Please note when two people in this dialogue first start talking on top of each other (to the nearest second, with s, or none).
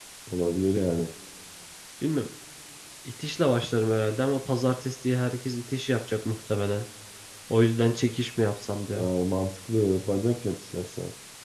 none